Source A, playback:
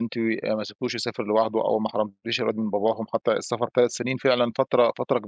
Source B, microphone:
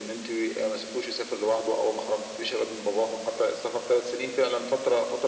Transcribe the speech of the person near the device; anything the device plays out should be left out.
none

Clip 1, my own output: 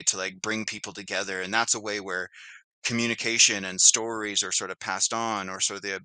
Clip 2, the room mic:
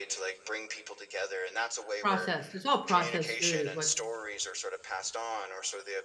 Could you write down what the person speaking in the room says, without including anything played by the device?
Processed. It's all processed food is what

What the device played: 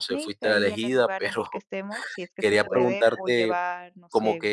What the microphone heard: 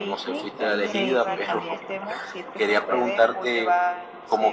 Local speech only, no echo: sí, sí, también.

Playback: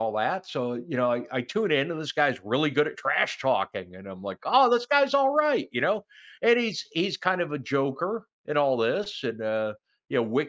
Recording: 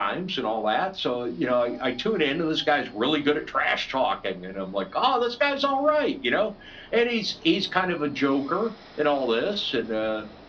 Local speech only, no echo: none

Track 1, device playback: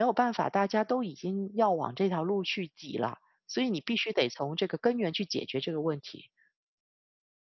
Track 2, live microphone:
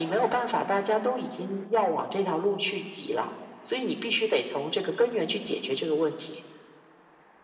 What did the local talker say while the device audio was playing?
none

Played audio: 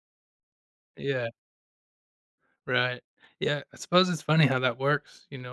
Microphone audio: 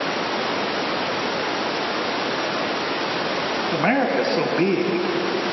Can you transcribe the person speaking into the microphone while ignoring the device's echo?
America is so big,

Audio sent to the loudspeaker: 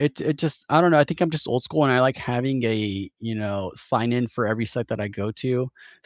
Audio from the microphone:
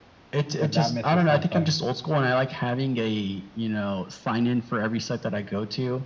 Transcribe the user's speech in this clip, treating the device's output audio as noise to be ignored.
if that misses something,

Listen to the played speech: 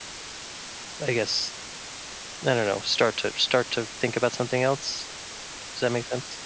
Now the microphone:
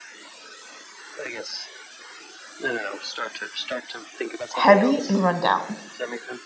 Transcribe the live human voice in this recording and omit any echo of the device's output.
heavy and run down.

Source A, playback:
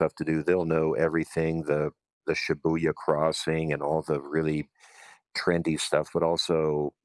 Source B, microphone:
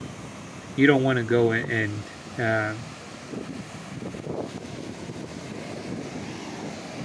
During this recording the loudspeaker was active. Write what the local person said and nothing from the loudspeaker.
you don't want to go a- and uh,

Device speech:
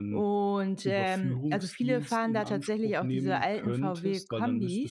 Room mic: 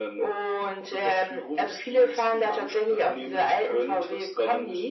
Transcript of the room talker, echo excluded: none

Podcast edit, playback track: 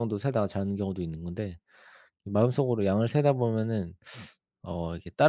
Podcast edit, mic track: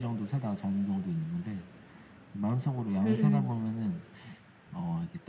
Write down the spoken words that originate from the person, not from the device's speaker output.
음음.

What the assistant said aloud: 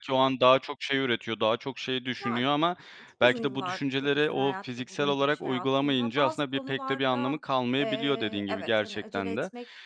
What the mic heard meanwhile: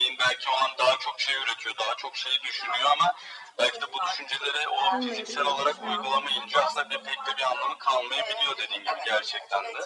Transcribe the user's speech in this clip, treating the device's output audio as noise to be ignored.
Olmayabiliyor. Hı hı.

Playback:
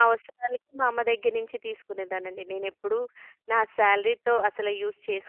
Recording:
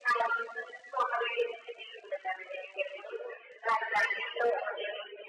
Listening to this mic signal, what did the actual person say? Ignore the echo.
none

